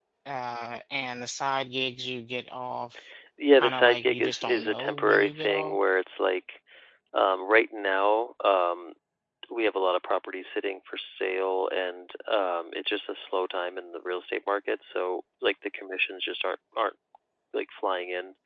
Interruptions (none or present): present